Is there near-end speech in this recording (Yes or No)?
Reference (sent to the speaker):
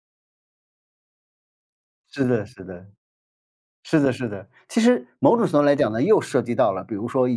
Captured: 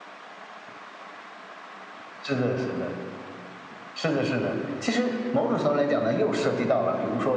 No